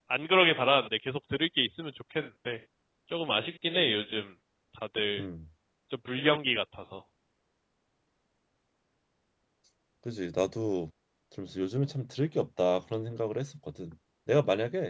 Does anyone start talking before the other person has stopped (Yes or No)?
No